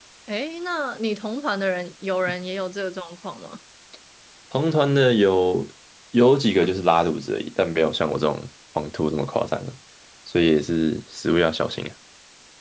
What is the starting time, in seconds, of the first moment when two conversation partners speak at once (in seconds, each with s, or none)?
none